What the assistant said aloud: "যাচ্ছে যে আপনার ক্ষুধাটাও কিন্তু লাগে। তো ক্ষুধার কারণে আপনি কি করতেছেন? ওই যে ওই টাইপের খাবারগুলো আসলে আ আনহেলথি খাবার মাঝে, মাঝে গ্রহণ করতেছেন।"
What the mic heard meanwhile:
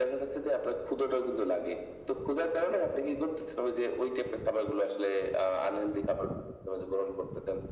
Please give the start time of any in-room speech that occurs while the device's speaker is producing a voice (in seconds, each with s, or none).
none